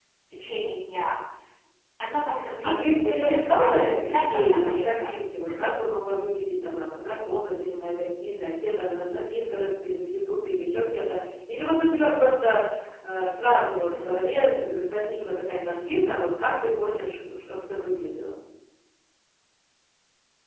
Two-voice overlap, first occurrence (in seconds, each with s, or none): 2.6 s